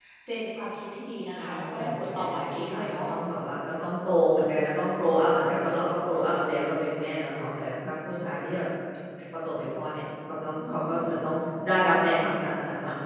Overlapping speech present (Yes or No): Yes